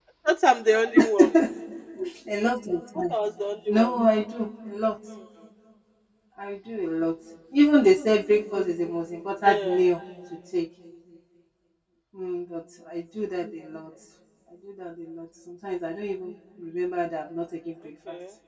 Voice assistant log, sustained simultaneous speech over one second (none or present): none